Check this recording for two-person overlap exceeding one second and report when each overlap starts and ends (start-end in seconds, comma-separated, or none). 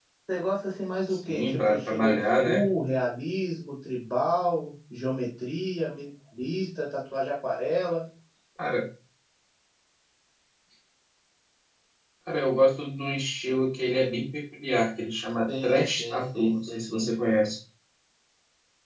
1.3-2.6, 15.6-17.1